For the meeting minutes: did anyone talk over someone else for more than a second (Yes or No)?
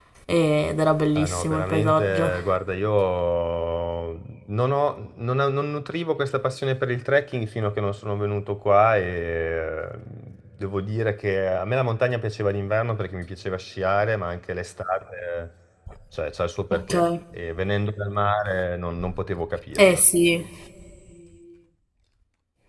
Yes